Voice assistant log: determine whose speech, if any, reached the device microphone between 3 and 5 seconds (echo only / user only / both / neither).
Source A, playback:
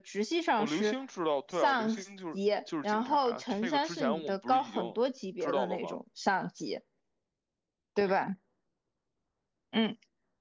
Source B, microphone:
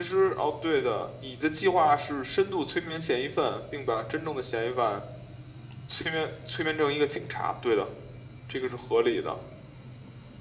user only